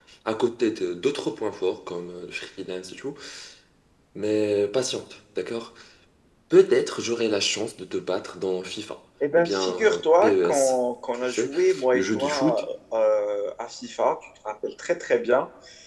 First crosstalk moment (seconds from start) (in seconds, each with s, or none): 9.2 s